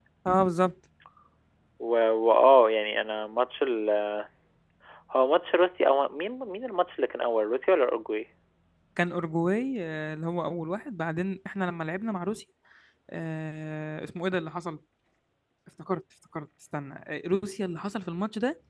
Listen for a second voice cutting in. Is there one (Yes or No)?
No